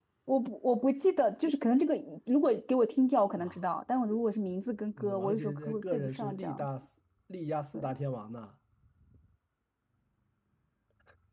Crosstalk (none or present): present